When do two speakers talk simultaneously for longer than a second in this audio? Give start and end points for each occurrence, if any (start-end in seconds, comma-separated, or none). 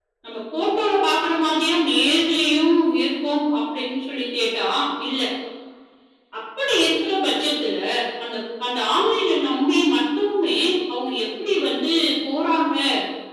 none